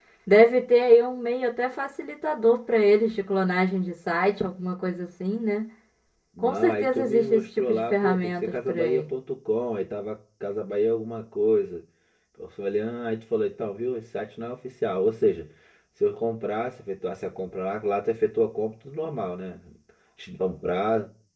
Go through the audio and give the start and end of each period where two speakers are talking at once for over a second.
6.4-9.1

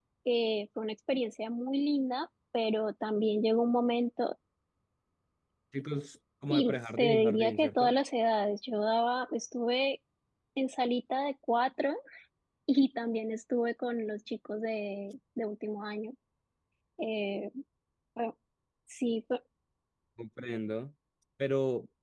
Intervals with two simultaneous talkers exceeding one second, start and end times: 6.5-7.9

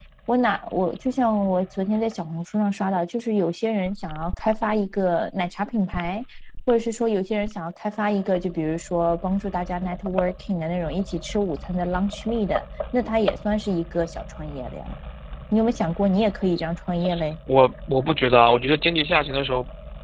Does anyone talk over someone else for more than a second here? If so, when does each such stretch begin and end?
none

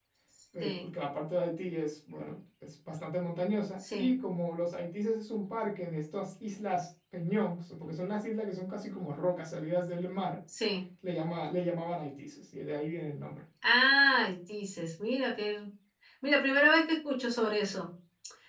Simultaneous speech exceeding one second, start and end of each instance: none

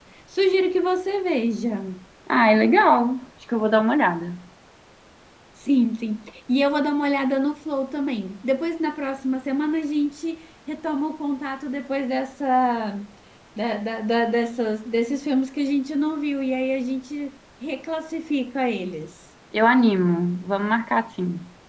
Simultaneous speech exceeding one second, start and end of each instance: none

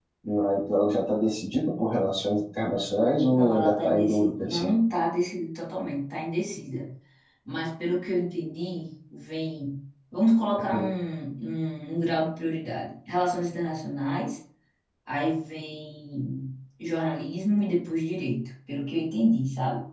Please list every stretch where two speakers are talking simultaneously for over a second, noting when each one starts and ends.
3.3-4.6

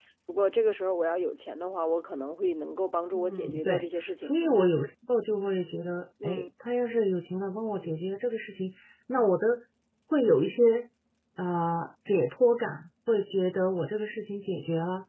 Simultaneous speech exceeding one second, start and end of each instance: 3.1-4.3

